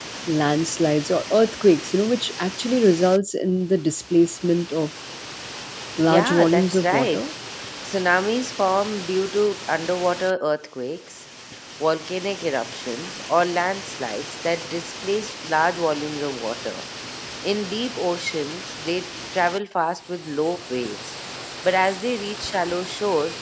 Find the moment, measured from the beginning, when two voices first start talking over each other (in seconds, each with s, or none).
6.0 s